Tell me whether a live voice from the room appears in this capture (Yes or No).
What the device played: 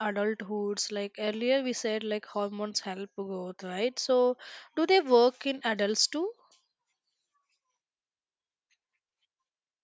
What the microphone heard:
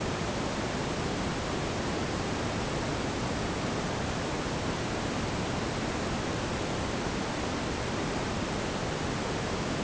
No